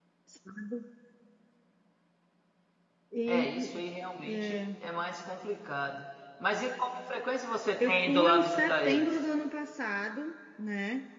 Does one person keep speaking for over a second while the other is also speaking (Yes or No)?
Yes